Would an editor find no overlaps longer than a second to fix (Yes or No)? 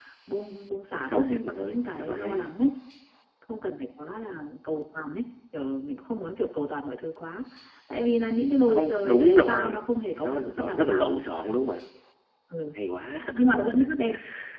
No